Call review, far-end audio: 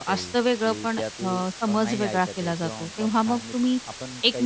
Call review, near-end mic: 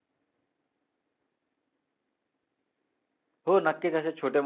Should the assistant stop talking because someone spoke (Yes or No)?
Yes